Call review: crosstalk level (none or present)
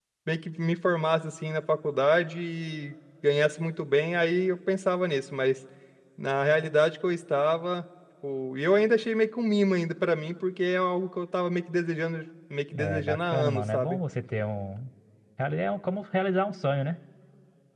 present